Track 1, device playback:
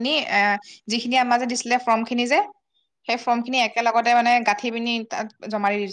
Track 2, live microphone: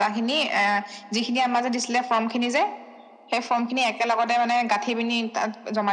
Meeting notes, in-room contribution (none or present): none